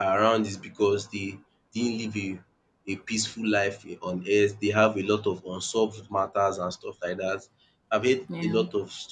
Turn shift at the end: No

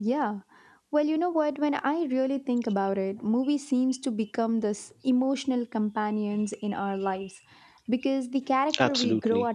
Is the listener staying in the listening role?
Yes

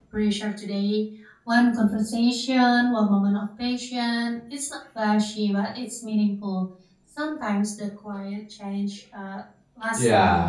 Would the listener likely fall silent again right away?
No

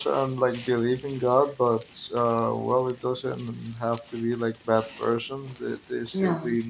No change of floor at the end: Yes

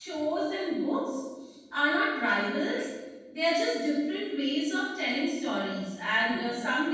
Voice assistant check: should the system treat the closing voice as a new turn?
No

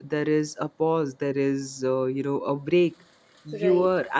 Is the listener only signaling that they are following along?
Yes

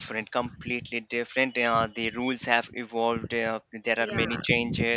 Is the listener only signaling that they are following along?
Yes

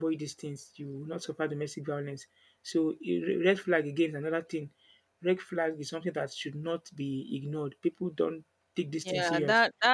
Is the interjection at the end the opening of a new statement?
Yes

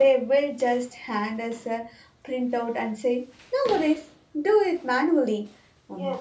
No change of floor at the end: No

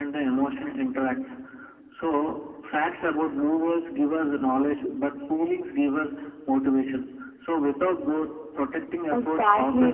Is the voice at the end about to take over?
Yes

